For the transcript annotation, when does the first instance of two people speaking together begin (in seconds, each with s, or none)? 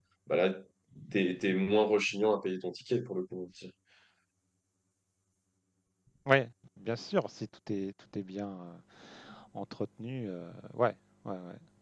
none